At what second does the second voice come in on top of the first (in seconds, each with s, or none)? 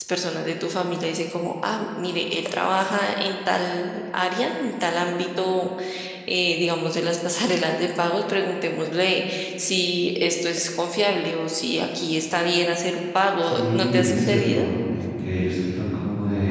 13.4 s